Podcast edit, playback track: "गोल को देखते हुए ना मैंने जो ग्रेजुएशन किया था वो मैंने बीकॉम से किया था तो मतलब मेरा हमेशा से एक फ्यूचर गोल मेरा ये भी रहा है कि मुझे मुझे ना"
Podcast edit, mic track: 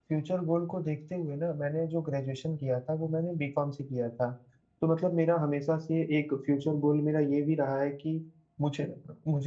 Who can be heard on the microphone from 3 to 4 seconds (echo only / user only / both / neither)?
echo only